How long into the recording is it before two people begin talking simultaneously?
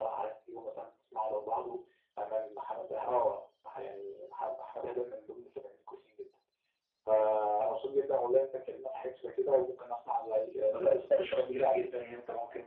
10.7 s

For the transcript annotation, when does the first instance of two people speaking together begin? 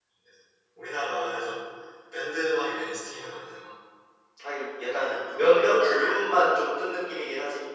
4.8 s

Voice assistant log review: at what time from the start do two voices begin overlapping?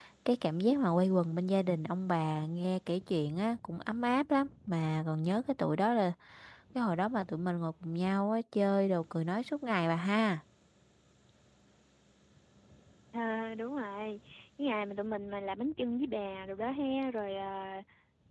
none

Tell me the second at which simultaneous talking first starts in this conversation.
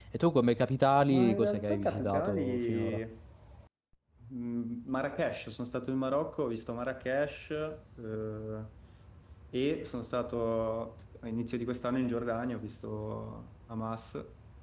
1.0 s

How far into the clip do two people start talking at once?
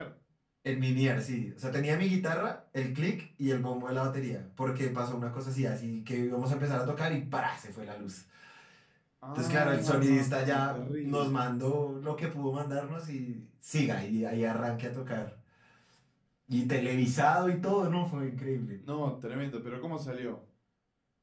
9.3 s

